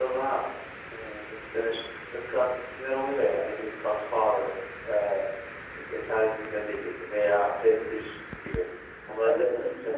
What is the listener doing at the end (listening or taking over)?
taking over